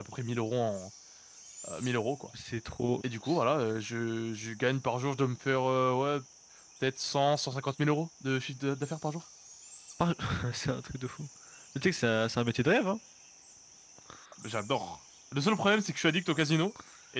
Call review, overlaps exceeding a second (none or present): none